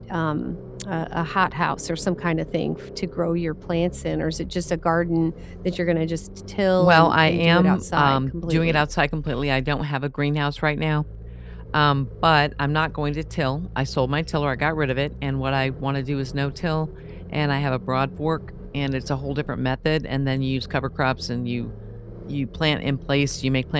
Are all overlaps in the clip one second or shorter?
No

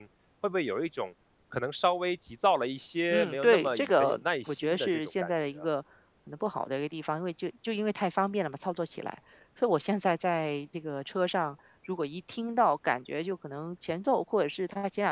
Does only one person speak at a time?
No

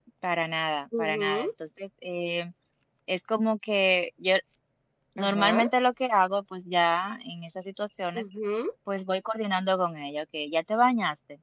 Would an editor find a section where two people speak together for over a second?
No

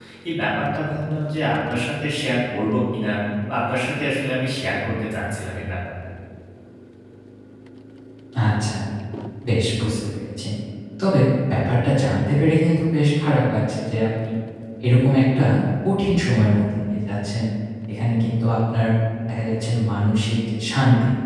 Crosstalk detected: No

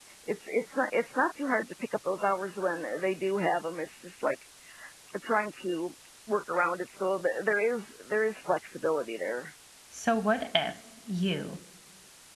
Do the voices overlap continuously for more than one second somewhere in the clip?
No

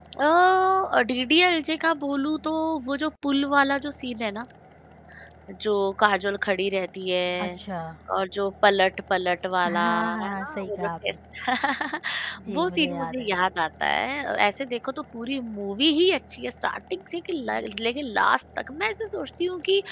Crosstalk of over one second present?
Yes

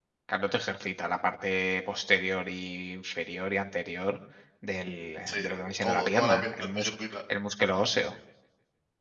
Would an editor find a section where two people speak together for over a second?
Yes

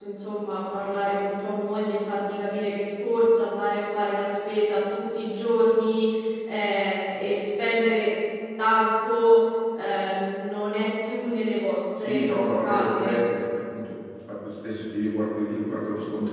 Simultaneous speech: Yes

